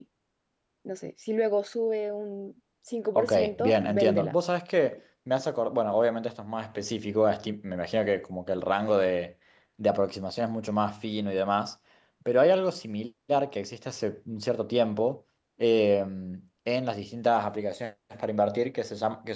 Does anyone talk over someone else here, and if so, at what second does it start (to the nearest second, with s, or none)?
3 s